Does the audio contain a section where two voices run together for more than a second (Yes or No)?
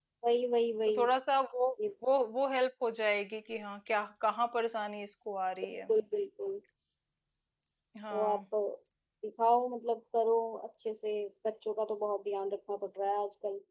No